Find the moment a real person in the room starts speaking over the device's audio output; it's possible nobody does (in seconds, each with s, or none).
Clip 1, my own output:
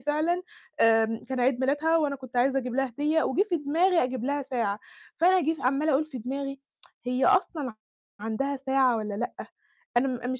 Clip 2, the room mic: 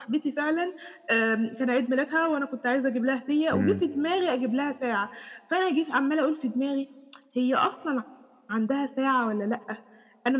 3.5 s